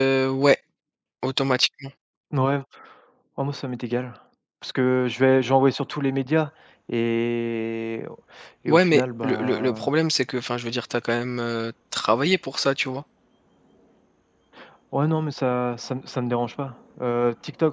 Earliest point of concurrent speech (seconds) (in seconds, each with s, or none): 8.7 s